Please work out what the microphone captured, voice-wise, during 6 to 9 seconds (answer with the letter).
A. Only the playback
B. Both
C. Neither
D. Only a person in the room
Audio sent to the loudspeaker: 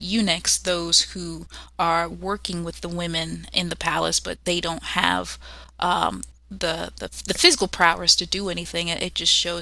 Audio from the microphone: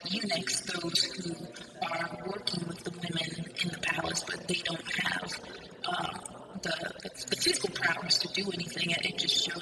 B